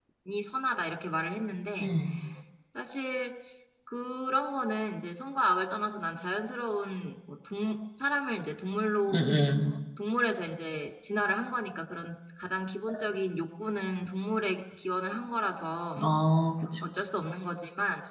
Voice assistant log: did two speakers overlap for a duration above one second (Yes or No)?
No